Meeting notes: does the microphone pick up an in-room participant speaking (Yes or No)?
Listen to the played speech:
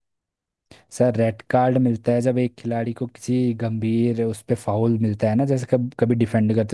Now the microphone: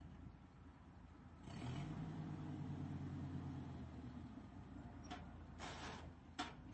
No